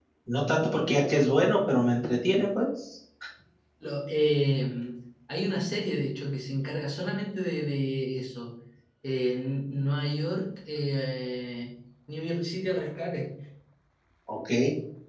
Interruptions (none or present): none